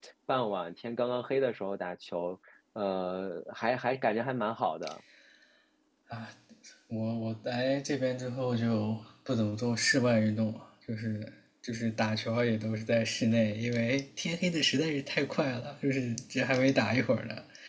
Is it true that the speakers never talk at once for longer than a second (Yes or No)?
Yes